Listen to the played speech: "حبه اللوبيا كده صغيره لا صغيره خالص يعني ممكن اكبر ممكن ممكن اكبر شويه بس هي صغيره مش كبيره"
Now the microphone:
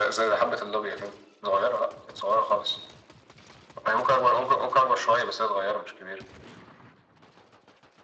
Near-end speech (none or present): none